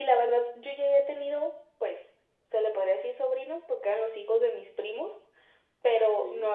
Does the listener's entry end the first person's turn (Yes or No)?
No